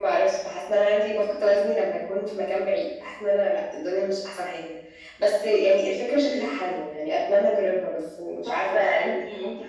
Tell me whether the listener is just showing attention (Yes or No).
No